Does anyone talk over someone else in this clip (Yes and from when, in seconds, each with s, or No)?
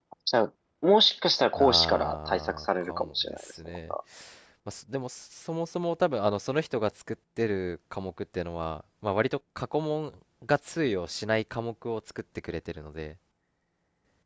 Yes, from 1.5 s